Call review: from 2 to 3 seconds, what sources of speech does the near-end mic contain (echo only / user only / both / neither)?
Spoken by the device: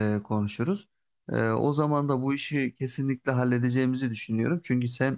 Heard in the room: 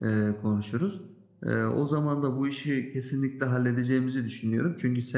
echo only